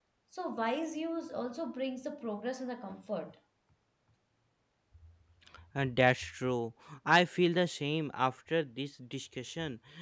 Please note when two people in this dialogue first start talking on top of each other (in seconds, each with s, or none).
none